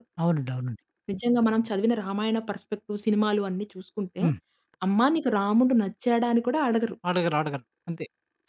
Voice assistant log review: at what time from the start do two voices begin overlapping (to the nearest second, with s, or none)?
none